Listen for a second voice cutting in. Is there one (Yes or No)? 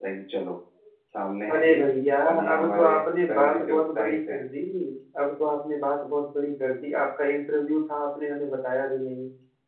Yes